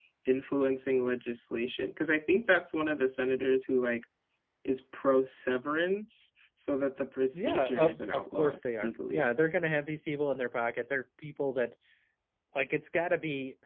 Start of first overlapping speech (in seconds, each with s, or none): 7.3 s